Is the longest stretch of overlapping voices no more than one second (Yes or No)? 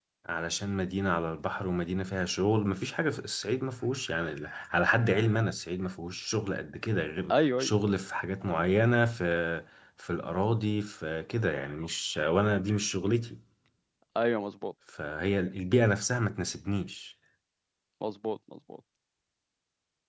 Yes